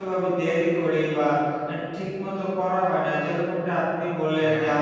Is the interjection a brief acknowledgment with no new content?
Yes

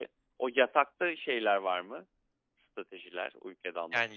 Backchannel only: No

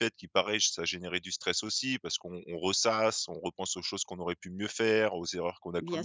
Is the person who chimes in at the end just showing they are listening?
Yes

